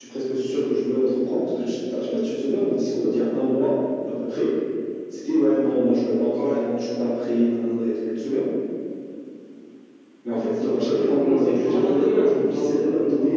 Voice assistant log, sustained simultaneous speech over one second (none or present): present